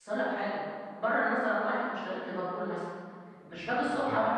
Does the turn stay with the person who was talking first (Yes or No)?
Yes